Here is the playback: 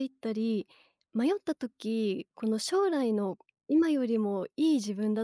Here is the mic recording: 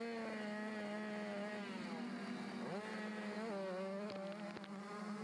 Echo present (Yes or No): No